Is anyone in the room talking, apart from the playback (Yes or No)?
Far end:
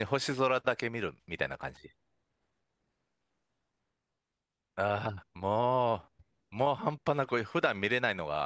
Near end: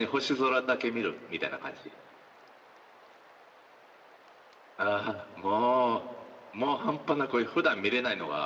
No